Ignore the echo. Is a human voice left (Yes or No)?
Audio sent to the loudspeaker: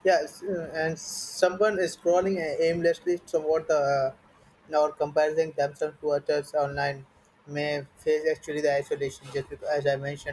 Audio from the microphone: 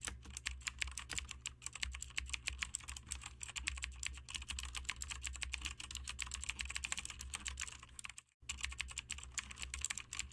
No